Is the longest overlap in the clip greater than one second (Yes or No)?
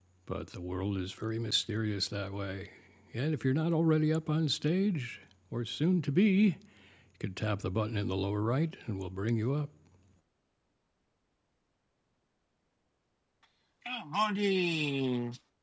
No